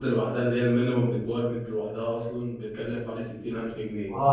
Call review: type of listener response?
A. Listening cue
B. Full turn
B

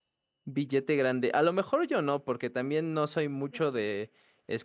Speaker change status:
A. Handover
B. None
B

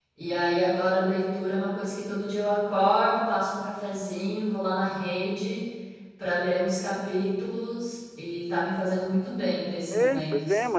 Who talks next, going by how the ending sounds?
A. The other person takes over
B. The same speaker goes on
A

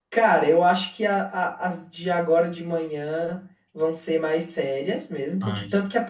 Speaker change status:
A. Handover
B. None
B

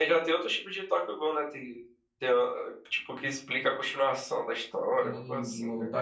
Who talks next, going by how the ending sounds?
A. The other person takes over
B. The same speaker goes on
A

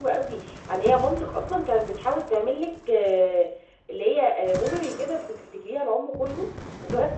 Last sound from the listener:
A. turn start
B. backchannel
A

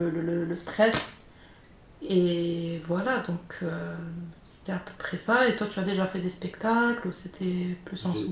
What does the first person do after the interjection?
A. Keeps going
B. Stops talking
B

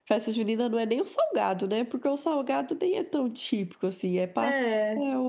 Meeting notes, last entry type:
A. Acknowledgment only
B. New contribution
A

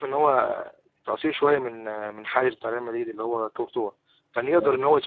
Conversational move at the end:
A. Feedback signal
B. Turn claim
A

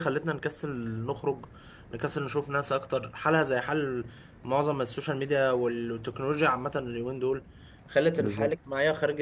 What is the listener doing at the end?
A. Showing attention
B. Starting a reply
A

